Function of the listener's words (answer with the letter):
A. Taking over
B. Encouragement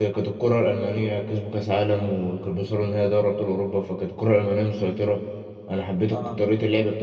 B